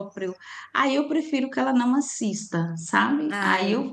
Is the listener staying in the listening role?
Yes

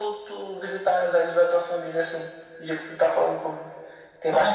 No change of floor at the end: Yes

